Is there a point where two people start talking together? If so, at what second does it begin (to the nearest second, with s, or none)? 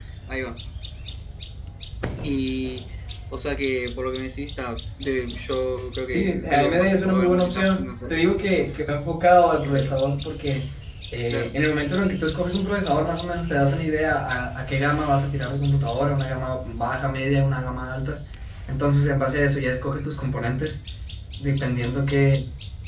6 s